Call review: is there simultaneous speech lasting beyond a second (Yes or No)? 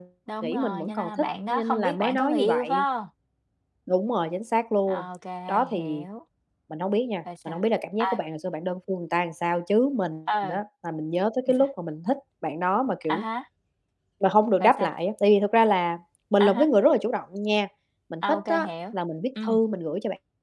Yes